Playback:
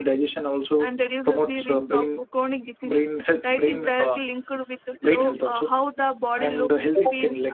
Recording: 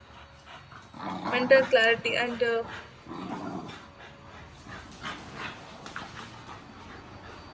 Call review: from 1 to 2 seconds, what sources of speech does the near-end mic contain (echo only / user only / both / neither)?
user only